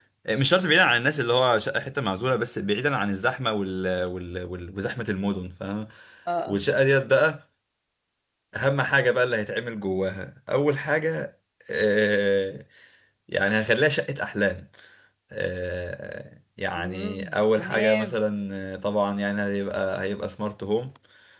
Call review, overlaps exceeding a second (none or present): present